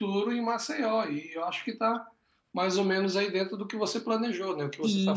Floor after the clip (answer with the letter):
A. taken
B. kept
A